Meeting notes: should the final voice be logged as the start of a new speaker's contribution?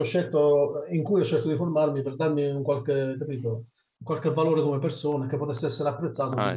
Yes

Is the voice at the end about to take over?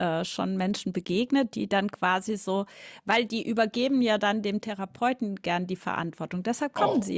Yes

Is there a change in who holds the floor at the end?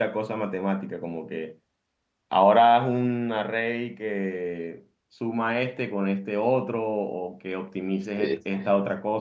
No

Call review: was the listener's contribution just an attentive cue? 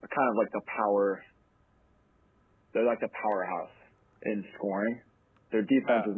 Yes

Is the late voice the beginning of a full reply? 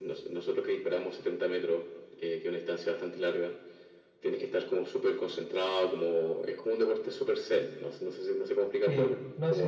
Yes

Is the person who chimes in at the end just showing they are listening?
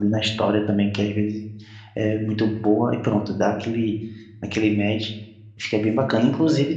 Yes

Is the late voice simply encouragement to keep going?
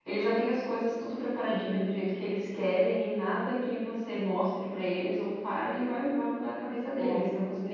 Yes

